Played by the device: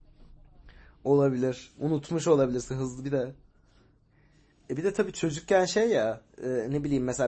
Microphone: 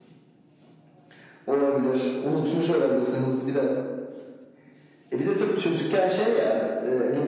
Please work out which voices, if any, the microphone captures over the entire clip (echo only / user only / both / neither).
echo only